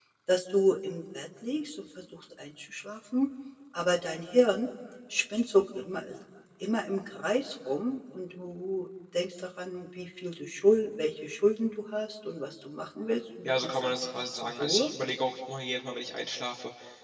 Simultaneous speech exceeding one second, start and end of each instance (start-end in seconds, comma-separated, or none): 13.4-14.9